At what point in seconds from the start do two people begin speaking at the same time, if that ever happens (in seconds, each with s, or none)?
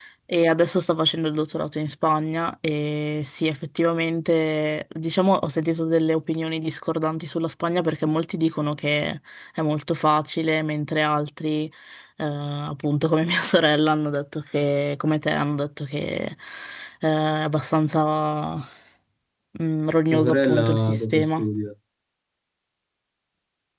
20.1 s